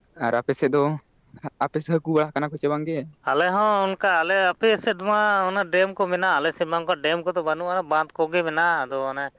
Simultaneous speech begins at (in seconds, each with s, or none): none